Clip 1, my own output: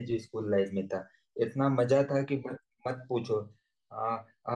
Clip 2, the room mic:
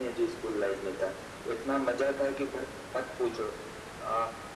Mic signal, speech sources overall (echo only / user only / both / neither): echo only